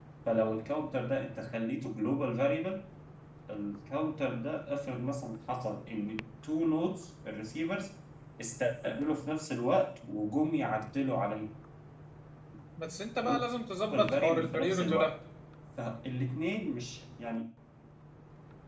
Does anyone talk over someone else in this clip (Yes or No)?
Yes